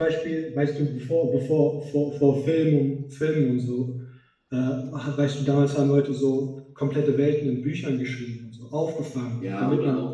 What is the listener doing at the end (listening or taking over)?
taking over